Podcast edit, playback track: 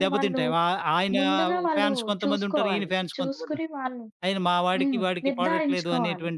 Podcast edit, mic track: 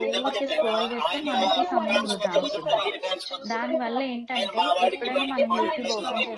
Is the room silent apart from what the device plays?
No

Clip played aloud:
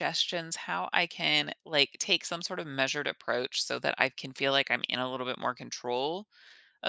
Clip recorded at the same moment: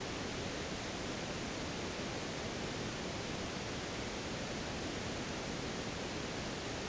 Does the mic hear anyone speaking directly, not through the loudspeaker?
No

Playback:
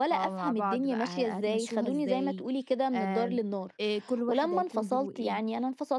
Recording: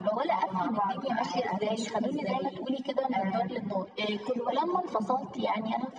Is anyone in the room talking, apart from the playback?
No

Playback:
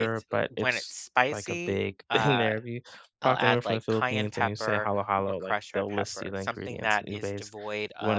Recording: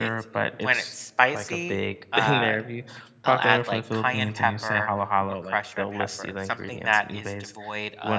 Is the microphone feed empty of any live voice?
Yes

